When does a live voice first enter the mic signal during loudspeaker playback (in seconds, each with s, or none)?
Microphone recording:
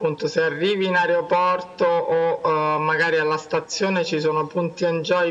none